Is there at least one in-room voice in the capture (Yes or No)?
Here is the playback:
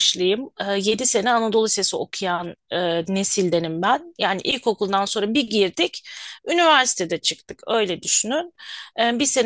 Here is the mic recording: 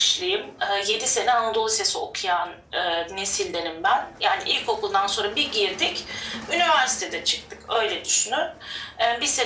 No